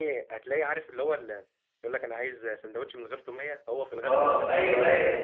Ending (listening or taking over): taking over